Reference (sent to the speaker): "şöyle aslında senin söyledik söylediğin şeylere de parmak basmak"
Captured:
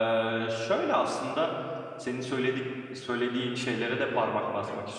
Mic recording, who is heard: both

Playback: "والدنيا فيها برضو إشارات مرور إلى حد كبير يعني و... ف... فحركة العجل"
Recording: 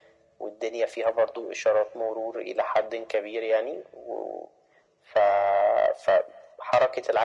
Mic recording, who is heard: echo only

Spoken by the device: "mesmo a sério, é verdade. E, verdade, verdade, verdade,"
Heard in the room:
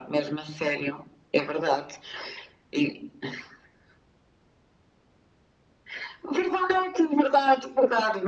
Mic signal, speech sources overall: echo only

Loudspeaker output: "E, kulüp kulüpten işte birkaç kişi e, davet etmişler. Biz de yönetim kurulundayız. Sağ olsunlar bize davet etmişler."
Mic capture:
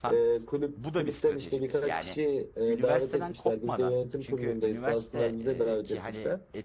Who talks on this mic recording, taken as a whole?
both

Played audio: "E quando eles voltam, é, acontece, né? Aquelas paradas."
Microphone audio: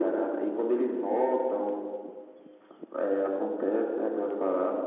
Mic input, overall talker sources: echo only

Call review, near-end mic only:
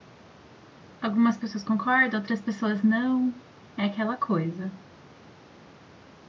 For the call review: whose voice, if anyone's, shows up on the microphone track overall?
user only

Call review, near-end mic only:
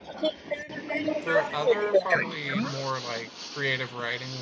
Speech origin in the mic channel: both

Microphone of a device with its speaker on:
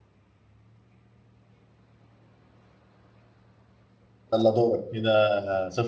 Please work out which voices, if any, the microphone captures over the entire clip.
user only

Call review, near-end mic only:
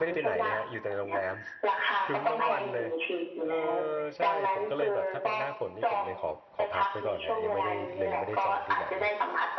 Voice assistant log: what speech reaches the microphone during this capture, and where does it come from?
both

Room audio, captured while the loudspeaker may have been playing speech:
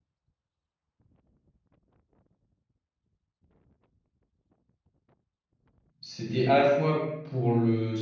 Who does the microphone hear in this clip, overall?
user only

